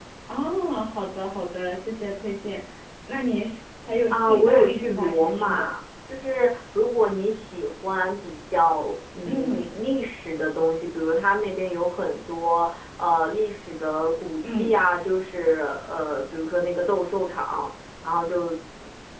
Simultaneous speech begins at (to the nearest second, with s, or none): 4 s